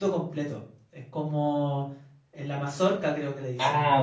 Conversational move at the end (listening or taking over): taking over